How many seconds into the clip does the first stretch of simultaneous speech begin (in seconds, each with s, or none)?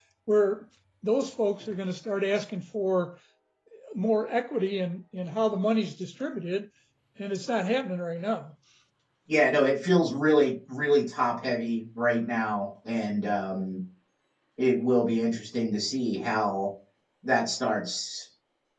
none